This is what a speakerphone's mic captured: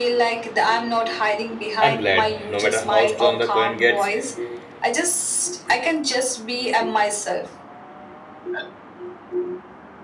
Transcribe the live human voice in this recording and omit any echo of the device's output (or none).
I'm glad, no matter how strong the current gets,